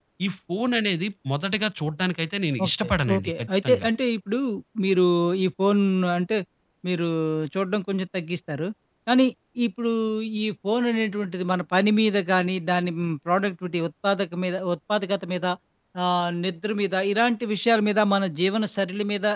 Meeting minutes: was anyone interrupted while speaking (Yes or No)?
Yes